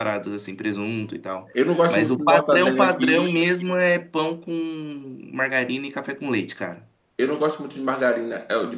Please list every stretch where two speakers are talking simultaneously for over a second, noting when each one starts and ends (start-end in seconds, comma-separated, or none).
1.9-3.4